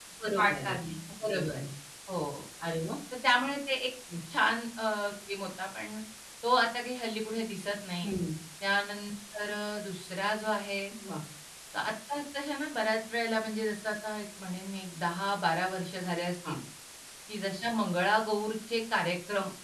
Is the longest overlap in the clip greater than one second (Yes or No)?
No